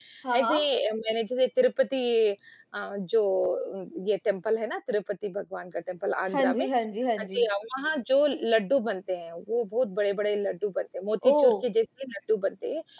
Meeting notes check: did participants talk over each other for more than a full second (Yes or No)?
No